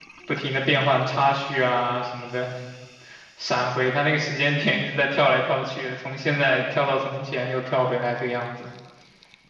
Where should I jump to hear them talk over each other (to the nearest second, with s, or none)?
none